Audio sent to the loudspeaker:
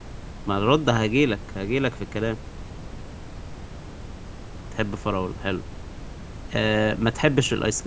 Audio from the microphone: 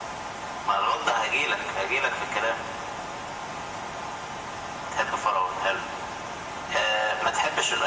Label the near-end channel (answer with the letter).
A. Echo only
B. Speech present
A